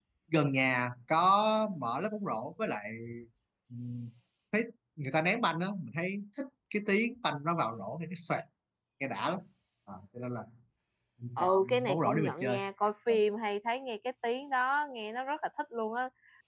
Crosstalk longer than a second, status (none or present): present